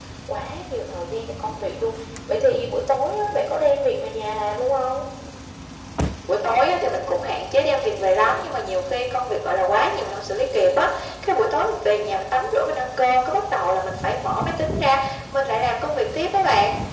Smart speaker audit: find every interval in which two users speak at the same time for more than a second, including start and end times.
none

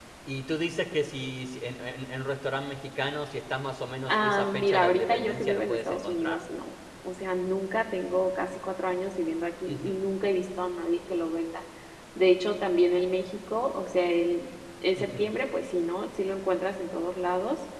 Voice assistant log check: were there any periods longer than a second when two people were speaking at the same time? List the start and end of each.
4.1-6.4

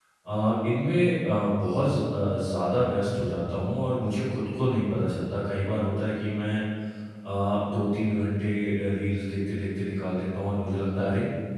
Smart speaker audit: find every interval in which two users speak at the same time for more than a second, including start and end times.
none

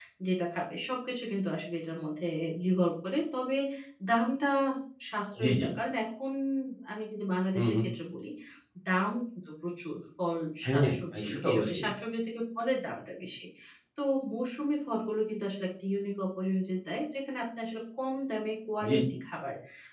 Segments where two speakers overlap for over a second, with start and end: 10.7-11.9

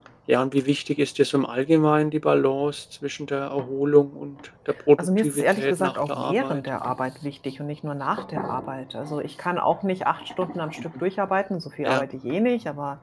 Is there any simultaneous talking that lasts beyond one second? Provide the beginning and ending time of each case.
5.0-6.6

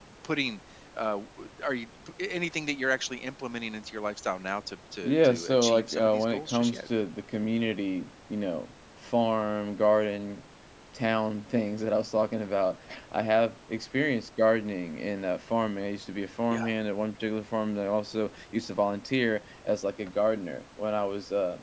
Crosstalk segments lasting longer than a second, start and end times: 5.0-6.9

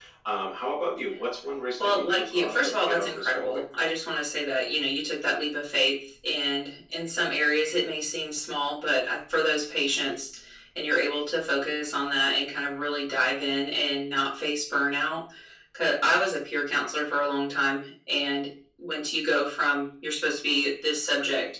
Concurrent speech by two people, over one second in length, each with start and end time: 1.8-3.6

